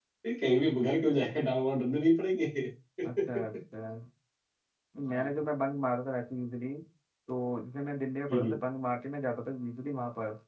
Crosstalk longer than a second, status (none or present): none